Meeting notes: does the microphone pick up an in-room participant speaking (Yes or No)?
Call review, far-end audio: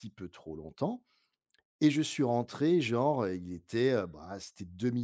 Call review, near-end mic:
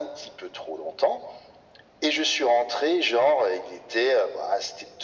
No